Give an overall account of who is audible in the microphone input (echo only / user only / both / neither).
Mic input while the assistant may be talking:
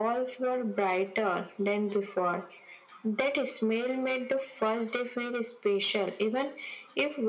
echo only